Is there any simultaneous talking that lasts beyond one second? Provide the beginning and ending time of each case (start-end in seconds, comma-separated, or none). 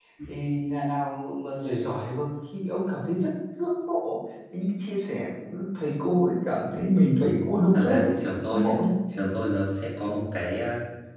none